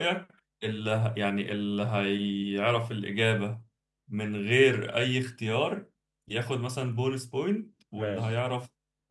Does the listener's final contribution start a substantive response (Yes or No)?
No